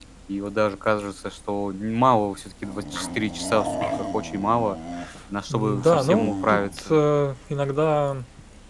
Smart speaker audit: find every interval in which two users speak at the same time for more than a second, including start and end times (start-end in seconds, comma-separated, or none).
5.5-7.0